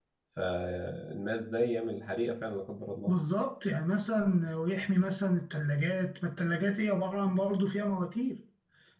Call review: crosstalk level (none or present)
none